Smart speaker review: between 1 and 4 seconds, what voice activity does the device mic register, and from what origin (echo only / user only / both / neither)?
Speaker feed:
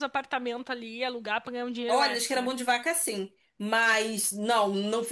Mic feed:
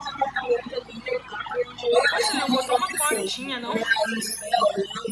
both